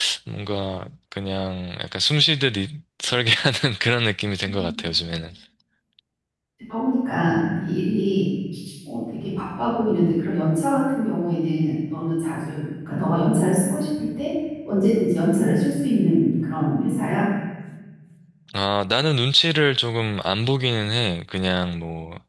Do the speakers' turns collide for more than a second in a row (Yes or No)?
No